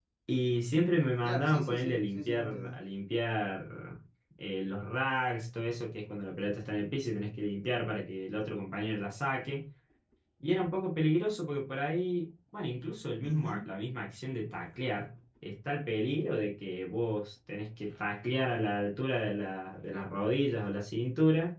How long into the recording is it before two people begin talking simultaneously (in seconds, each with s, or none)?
1.2 s